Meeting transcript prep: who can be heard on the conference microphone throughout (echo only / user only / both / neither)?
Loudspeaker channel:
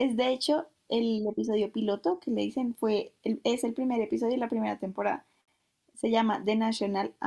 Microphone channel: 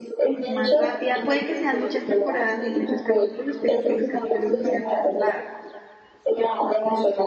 both